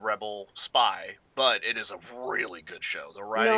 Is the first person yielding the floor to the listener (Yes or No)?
Yes